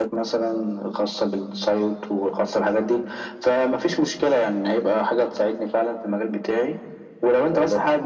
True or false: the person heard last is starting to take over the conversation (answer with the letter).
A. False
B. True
A